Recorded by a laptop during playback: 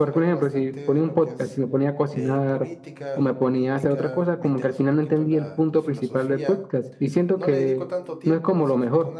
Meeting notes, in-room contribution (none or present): present